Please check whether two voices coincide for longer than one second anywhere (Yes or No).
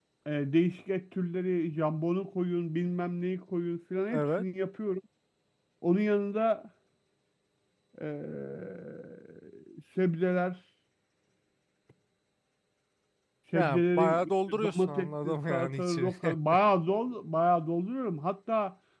Yes